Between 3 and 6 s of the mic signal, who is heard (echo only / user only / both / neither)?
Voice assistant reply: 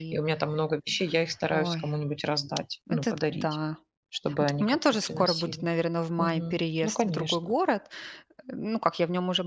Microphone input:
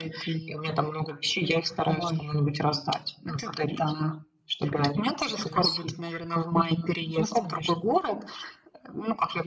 echo only